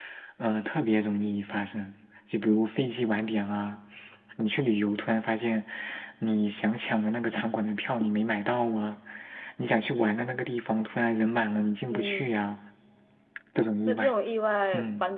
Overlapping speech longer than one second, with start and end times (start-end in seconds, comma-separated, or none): none